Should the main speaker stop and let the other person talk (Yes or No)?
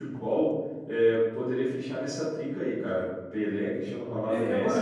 Yes